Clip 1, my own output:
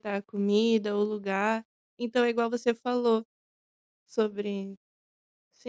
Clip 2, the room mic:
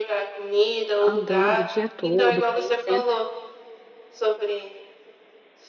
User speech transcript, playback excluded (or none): andando o dia todo conhecendo.